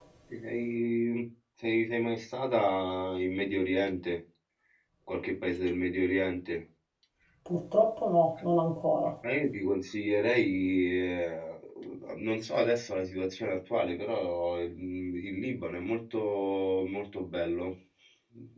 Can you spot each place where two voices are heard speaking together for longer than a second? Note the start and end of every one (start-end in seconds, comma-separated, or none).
none